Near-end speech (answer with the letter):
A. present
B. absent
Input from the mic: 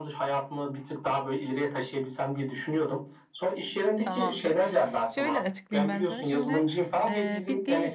A